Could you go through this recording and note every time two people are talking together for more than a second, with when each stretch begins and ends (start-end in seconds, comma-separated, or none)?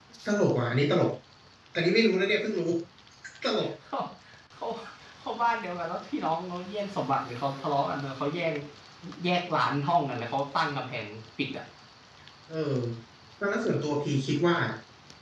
none